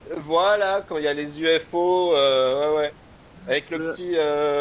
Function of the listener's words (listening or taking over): listening